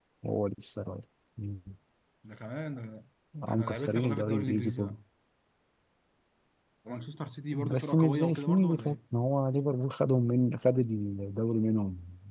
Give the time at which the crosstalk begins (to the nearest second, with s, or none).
3 s